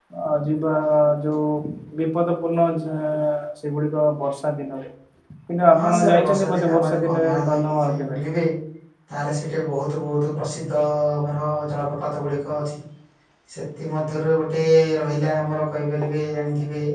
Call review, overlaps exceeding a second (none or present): present